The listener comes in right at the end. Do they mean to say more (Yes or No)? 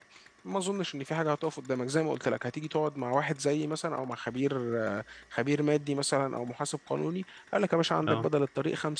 No